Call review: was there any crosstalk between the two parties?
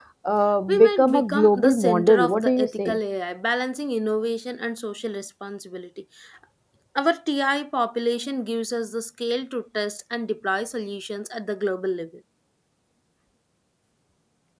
Yes, from 0.7 s

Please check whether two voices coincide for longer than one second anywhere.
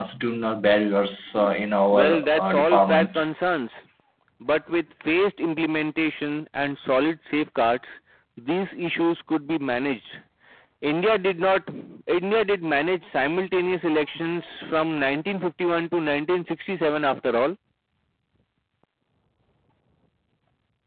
Yes, from 1.9 s

